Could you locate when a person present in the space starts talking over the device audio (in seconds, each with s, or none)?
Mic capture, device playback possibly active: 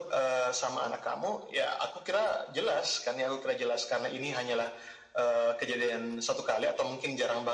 none